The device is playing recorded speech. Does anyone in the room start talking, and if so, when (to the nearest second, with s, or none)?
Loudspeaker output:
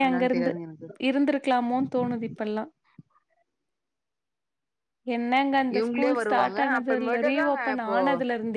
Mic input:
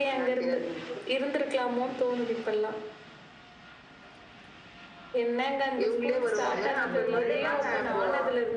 6 s